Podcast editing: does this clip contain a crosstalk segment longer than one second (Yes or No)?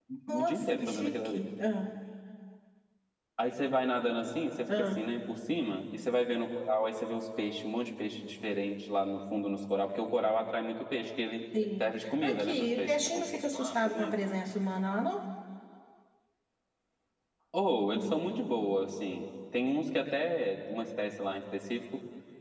Yes